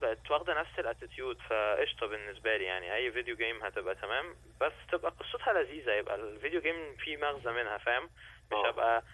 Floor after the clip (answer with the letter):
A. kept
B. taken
A